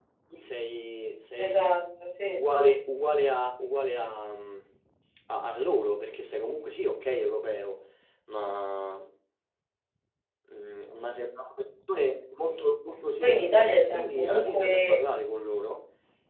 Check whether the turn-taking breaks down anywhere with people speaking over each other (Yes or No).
Yes